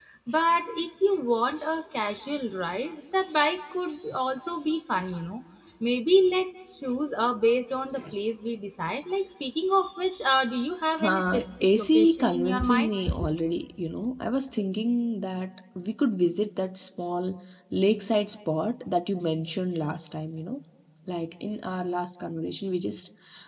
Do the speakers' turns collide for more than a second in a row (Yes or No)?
Yes